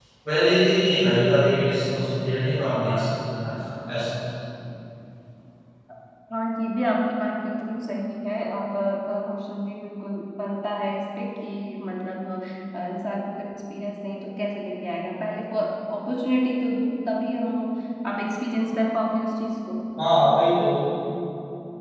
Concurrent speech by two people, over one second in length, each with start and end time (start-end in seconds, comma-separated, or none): none